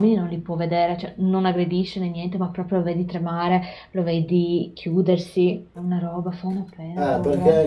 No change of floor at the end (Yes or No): No